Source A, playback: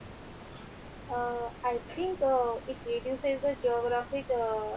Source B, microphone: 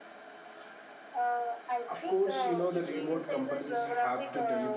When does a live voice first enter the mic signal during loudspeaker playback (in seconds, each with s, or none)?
1.9 s